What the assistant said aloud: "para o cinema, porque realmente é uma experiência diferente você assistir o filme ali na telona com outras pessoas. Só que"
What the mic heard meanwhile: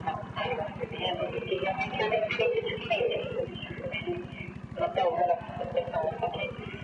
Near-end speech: none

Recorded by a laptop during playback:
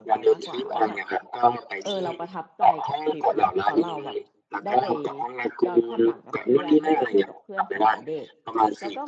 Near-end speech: present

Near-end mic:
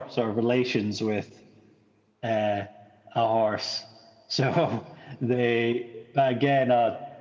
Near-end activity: none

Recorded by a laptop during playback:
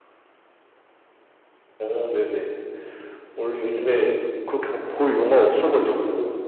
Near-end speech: none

